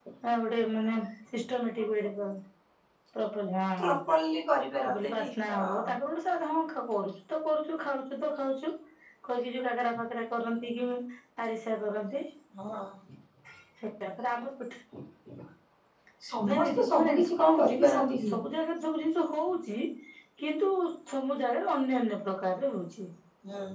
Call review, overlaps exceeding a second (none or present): present